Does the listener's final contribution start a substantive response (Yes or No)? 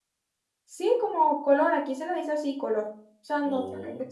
No